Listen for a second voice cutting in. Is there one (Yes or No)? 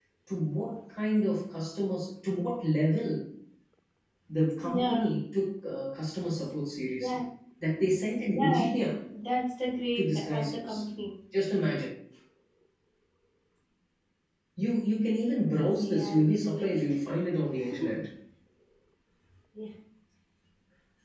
Yes